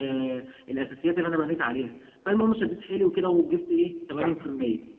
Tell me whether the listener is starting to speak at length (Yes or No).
No